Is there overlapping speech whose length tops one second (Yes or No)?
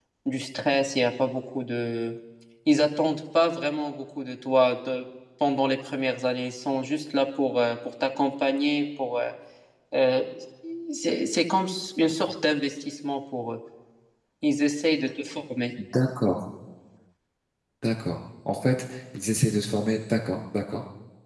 No